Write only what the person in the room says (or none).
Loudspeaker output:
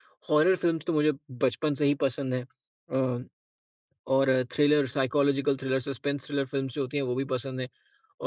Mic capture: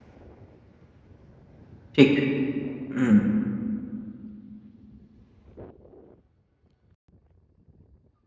ठीक है। हुँ।